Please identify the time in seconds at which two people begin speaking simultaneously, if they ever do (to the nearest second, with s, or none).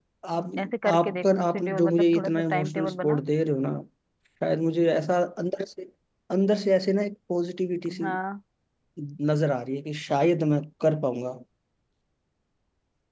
1 s